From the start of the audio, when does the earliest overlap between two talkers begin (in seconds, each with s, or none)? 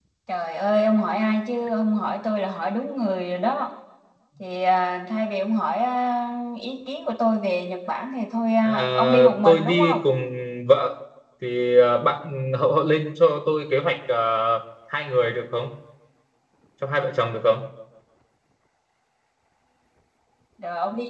8.6 s